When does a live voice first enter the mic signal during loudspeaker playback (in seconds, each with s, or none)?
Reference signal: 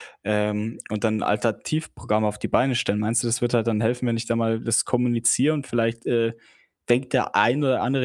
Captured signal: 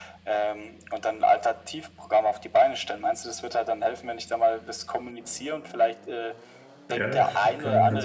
6.9 s